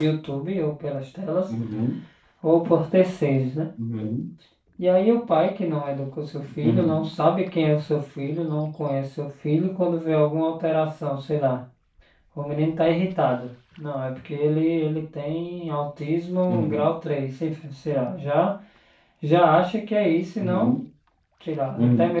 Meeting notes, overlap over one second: none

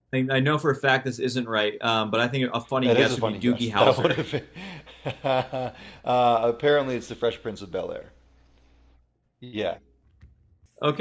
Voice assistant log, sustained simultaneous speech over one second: present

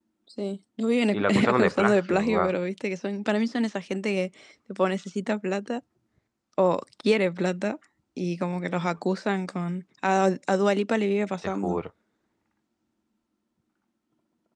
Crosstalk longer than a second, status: present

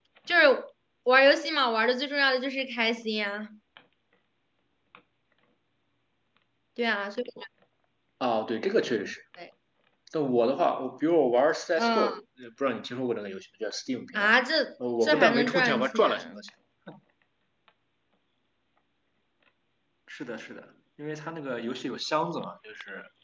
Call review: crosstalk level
present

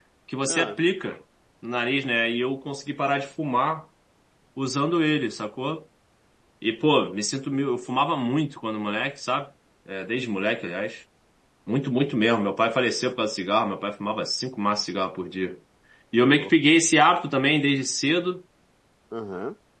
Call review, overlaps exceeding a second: none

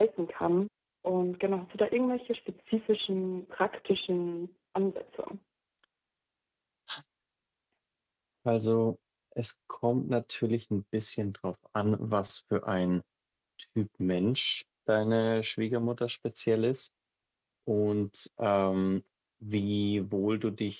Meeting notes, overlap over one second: none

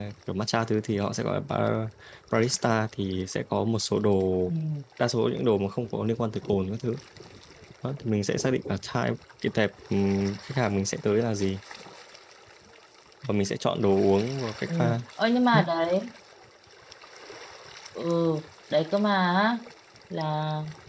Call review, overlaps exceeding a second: none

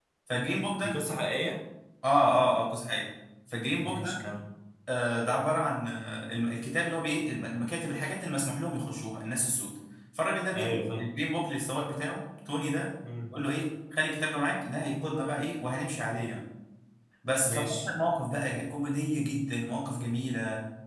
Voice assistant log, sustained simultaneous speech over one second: none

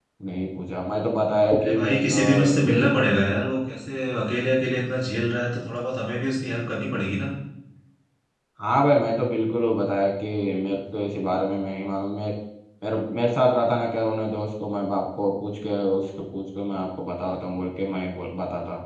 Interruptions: present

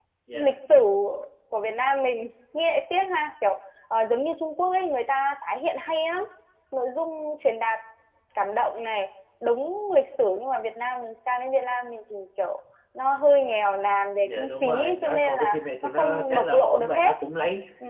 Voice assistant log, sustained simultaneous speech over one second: present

